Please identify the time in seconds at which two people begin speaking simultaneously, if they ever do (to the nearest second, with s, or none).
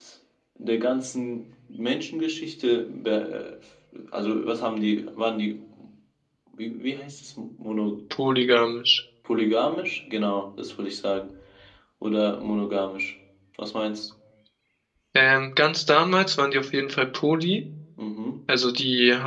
none